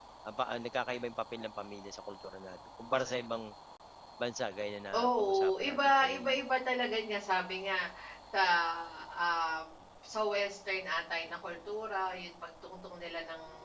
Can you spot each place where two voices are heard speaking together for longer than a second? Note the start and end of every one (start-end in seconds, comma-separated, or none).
5.0-6.4